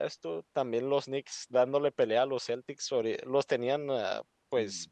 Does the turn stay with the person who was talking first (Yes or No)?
Yes